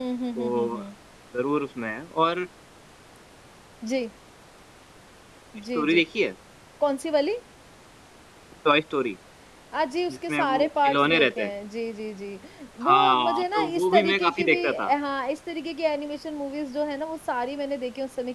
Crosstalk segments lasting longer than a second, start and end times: 10.1-11.5, 12.9-14.9

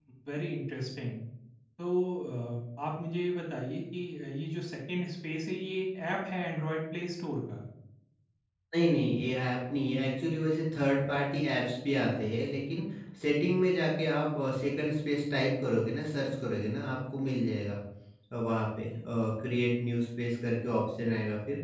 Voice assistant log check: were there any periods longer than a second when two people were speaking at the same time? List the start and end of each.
none

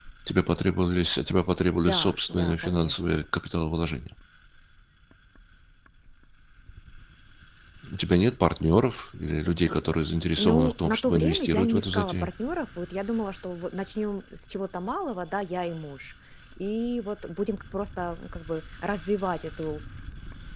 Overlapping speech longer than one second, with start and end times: 1.9-3.2, 10.4-12.3

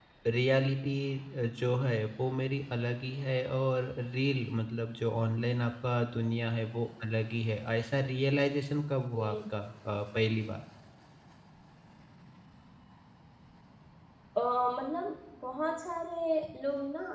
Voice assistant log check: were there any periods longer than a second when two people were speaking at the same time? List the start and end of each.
none

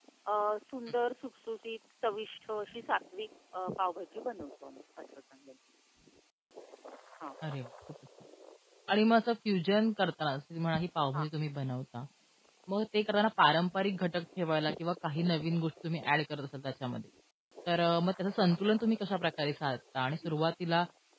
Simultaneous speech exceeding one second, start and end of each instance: none

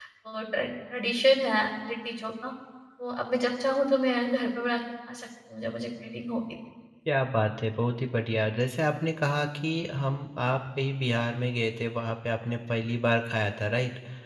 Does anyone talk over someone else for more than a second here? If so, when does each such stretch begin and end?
none

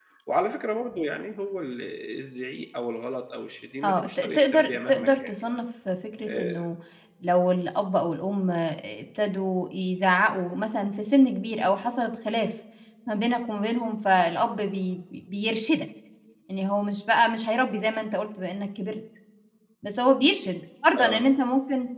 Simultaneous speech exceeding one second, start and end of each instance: 3.8-5.5

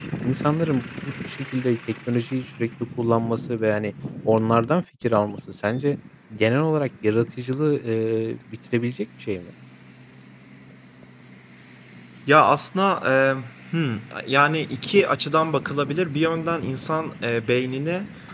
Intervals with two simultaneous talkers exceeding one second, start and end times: none

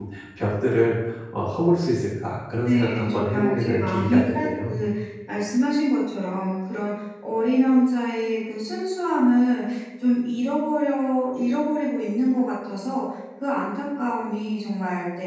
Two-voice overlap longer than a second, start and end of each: 2.6-4.9

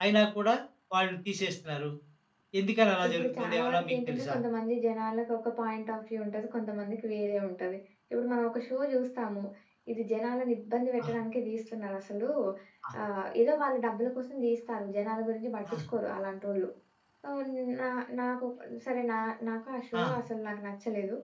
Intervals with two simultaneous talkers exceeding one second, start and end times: 3.1-4.3

